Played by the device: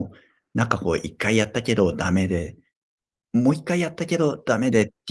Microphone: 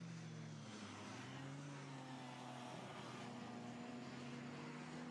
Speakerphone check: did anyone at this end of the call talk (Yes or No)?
No